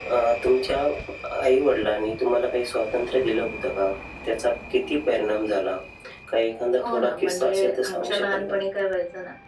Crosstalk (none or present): present